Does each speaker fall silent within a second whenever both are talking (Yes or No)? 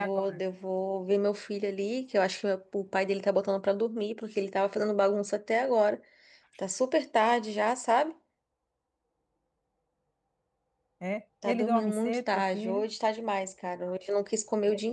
No